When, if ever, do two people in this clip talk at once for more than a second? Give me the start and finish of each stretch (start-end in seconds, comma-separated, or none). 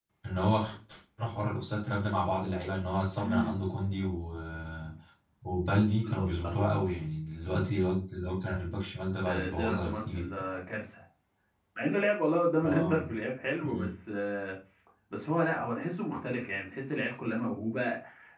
9.3-10.5